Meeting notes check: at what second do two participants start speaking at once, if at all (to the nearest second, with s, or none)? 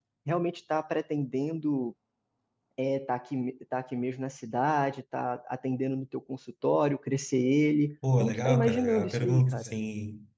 8 s